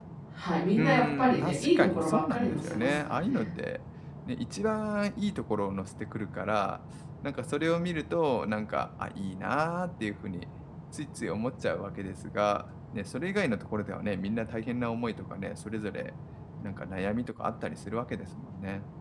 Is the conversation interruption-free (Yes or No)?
No